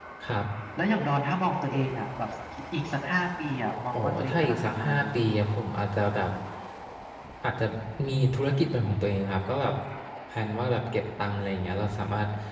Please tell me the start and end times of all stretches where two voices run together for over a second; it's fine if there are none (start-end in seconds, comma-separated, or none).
3.9-5.2